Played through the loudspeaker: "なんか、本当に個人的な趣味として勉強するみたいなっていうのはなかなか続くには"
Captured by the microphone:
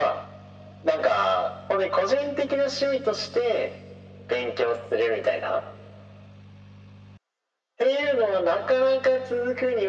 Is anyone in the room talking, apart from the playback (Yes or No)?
No